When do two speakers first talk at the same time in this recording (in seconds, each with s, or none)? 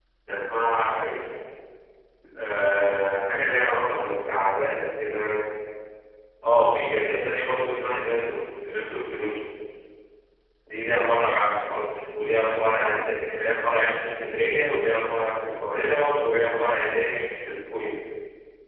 none